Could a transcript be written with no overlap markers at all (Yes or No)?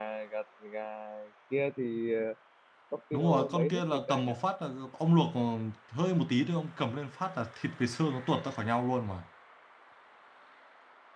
No